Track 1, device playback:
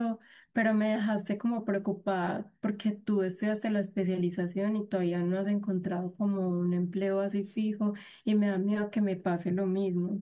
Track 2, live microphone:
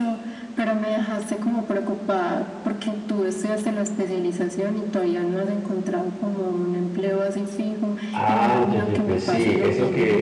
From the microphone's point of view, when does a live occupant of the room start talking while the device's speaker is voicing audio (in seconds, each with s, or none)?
8.1 s